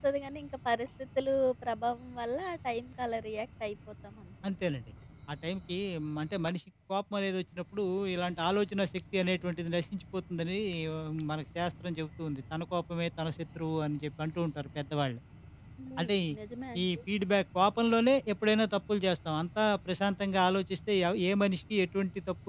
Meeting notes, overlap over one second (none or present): none